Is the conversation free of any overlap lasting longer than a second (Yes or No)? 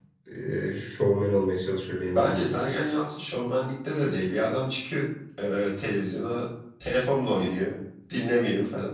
Yes